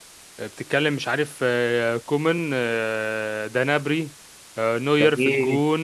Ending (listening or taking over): listening